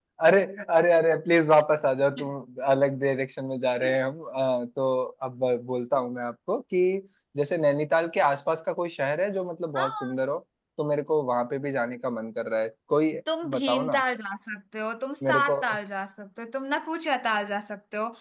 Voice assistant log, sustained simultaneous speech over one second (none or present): none